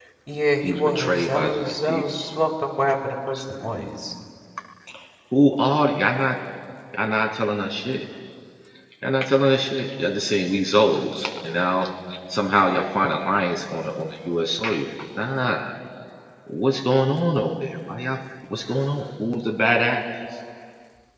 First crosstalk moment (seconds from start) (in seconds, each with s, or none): 0.6 s